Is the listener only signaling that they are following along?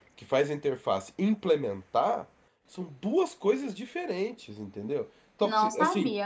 Yes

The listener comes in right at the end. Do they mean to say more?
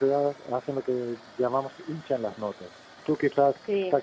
No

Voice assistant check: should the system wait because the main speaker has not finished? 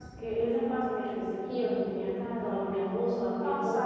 No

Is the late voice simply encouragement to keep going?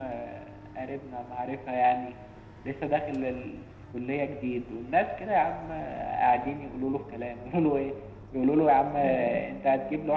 Yes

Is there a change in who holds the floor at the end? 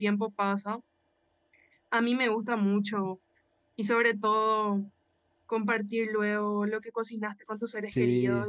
No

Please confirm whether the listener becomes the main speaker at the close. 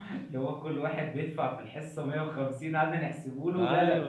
Yes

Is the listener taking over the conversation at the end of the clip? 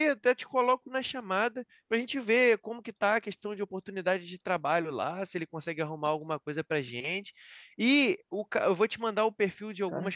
No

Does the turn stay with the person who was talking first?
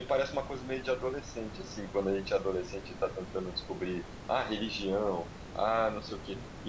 Yes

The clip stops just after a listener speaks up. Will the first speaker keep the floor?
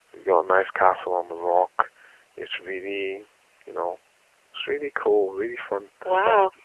No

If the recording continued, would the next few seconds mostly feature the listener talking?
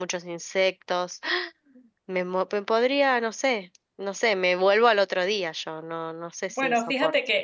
Yes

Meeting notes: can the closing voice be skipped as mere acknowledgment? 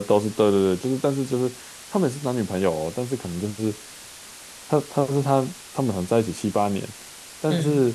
Yes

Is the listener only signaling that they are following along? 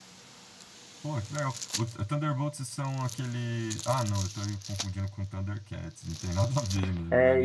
No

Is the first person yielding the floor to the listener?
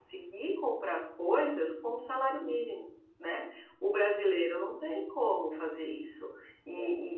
No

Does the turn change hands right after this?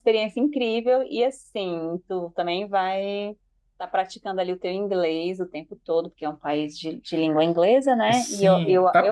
Yes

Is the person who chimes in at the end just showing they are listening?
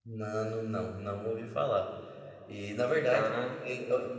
Yes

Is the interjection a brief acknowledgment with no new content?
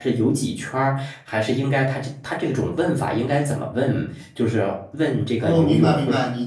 No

